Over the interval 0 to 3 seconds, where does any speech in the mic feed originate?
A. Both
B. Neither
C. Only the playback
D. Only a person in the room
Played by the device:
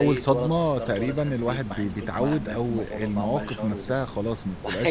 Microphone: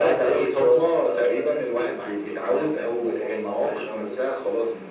C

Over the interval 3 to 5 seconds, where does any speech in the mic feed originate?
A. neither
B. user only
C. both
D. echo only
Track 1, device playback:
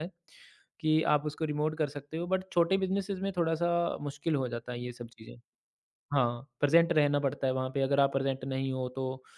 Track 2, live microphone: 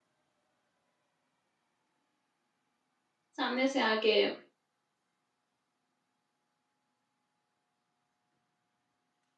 B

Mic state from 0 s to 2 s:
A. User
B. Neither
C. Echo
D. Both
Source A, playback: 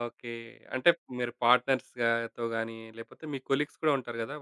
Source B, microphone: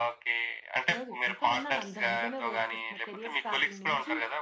D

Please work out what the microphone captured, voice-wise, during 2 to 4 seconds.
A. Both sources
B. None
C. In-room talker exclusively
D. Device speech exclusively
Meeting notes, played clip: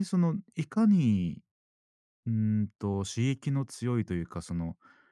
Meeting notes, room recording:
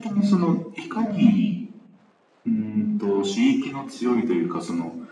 D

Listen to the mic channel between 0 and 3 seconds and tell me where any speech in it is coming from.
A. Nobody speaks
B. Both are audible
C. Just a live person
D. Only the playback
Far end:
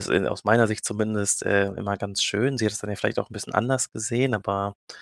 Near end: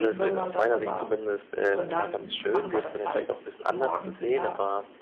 B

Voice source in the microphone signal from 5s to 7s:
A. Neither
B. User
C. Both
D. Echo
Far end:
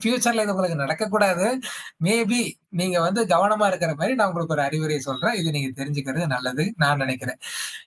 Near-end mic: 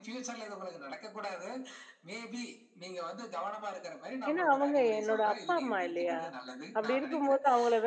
C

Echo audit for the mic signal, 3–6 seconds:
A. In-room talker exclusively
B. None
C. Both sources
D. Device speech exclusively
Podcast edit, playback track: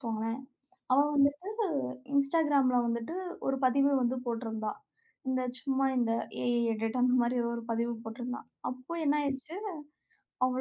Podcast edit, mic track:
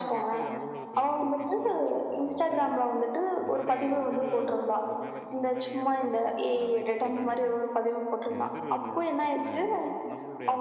C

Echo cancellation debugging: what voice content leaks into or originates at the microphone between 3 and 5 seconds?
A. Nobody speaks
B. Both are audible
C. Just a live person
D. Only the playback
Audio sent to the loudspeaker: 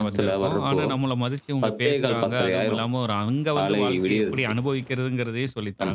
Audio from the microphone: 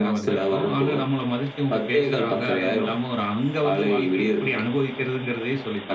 D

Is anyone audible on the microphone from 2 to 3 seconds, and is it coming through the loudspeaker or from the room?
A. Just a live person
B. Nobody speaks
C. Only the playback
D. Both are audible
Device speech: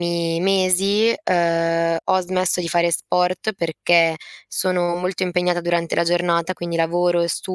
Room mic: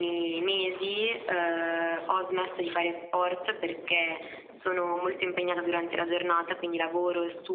C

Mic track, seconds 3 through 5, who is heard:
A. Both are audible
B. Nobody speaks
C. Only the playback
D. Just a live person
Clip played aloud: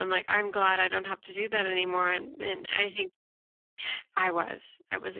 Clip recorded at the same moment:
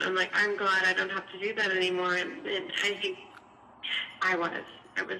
C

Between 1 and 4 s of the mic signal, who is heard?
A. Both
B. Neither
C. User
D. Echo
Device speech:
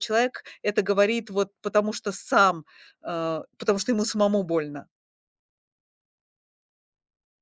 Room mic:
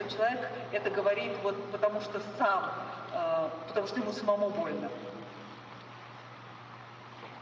D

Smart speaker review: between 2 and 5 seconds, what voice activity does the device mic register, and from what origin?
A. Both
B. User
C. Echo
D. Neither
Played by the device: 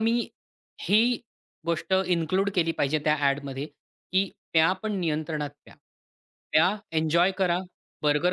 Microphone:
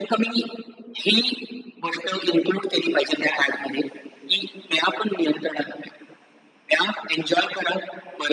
C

